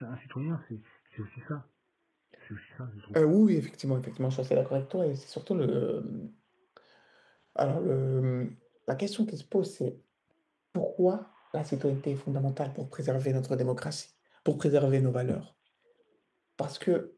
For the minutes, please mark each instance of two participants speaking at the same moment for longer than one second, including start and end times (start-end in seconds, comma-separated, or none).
none